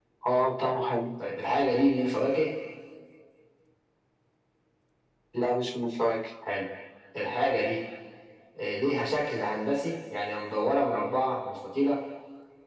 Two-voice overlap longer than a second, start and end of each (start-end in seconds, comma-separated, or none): none